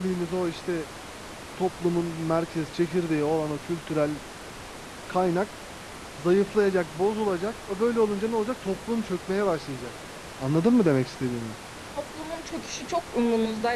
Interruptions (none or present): none